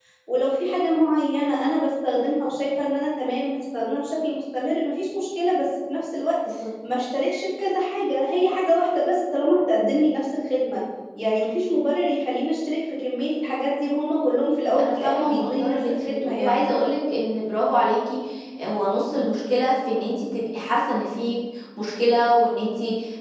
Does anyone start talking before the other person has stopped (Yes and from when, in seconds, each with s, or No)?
Yes, from 14.8 s